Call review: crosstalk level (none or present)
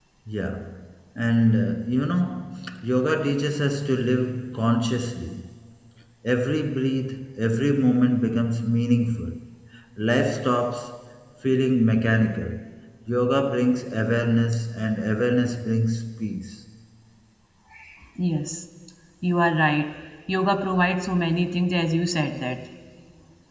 none